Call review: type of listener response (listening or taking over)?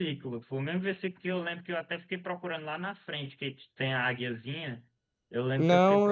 taking over